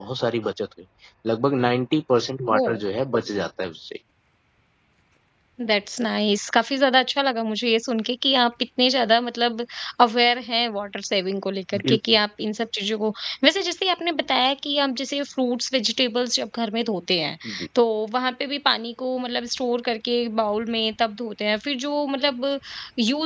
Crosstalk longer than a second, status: none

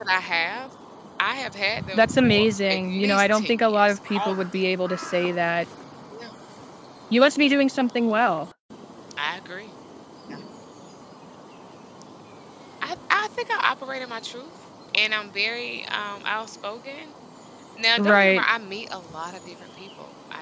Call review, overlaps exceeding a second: present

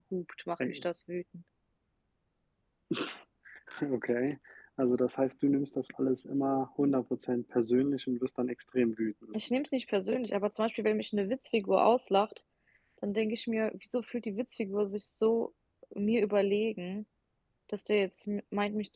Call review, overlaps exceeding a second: none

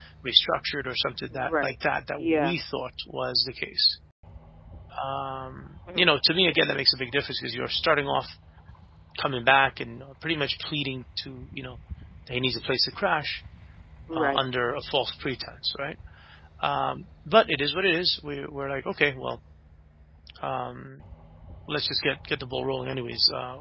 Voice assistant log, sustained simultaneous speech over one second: none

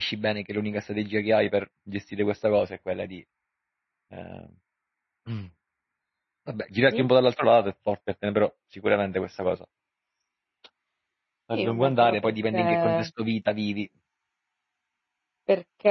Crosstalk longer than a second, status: present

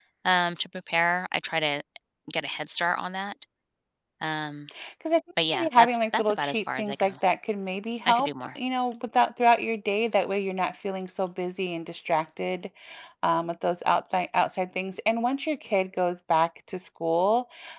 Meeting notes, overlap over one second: present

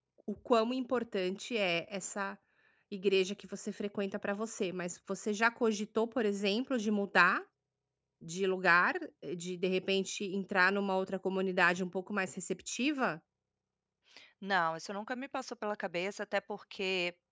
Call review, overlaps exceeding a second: none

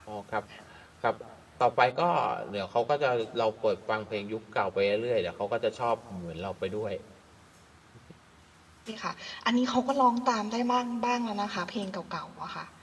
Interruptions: none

